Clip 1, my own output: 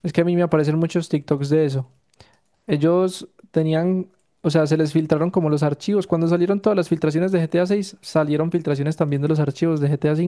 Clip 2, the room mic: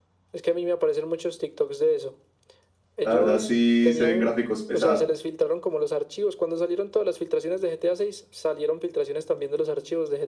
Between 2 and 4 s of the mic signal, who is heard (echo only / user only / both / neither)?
both